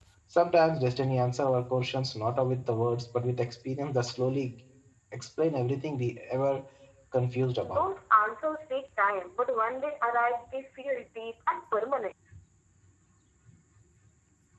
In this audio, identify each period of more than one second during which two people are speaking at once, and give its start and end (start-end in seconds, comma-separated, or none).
none